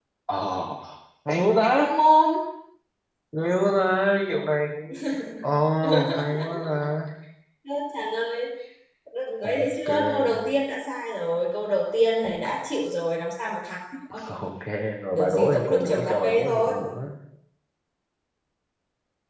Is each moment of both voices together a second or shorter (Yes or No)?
No